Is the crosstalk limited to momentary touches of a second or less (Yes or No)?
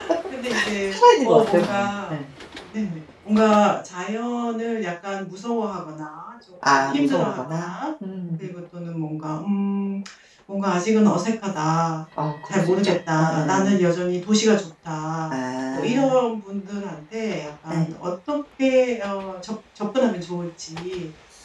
No